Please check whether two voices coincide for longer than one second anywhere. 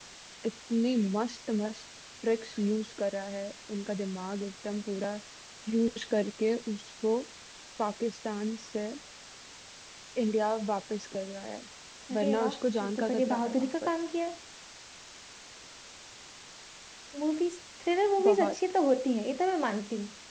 Yes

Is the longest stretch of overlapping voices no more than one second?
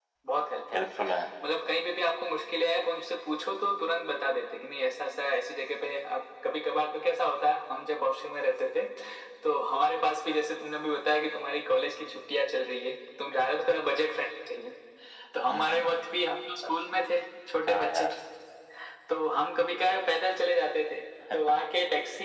Yes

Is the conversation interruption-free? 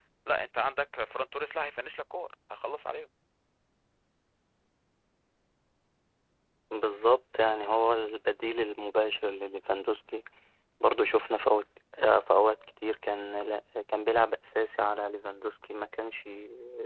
Yes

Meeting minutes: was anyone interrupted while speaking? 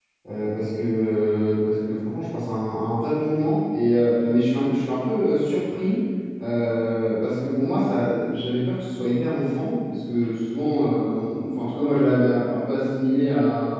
No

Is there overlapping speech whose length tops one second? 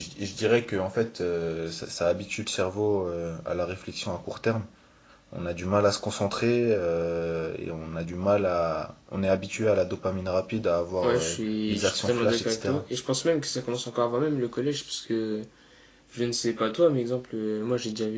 Yes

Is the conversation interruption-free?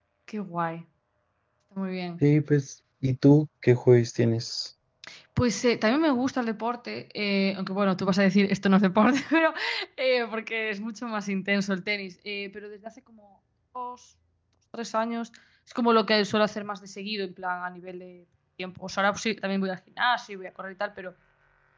Yes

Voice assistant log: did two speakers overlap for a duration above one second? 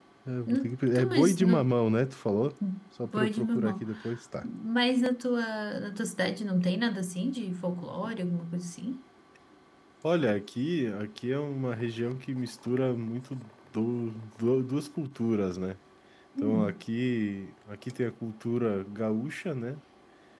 Yes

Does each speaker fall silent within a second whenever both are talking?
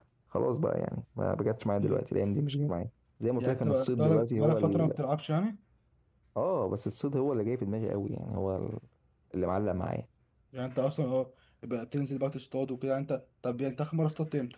No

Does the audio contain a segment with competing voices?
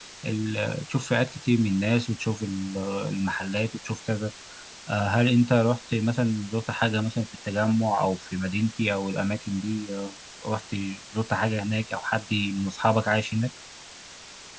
No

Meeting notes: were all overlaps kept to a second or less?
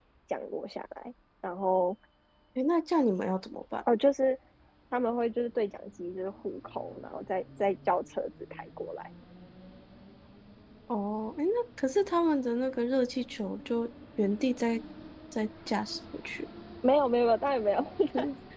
Yes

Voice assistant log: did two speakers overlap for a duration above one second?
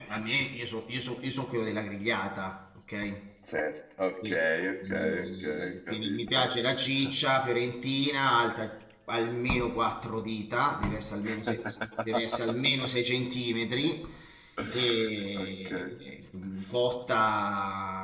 Yes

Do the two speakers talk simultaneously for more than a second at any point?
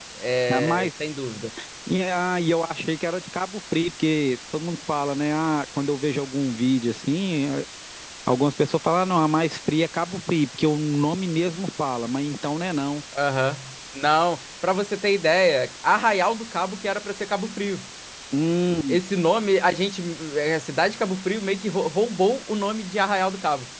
No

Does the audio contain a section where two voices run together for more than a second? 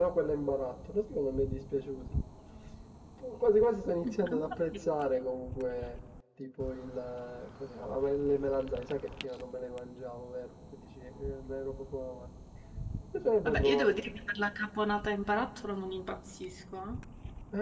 No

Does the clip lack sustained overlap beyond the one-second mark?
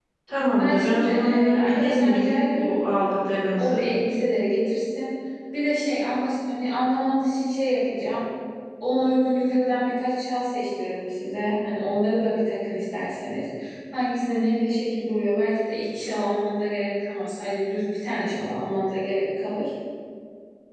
No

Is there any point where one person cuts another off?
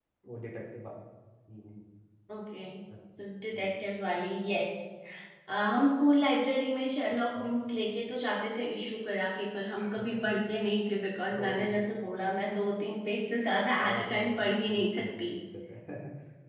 Yes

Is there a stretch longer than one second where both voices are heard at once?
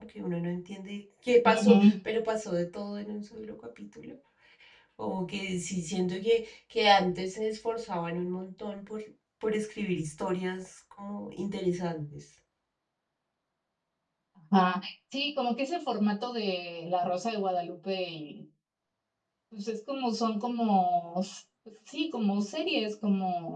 No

